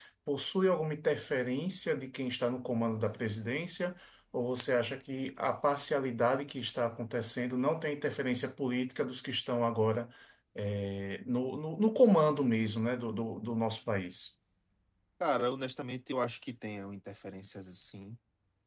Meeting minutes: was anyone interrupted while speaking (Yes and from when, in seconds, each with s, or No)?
No